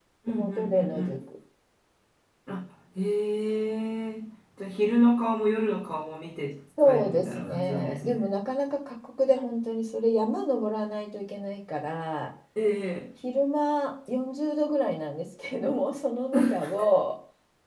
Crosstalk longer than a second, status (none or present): present